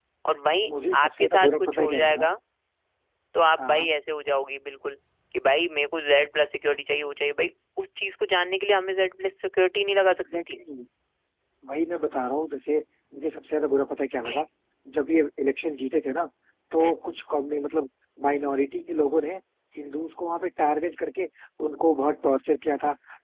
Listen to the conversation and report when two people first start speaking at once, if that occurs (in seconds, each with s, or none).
0.7 s